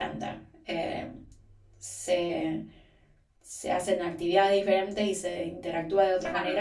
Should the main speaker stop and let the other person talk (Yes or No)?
Yes